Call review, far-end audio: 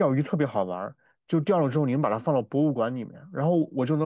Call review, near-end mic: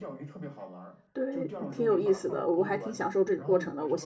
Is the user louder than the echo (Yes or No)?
Yes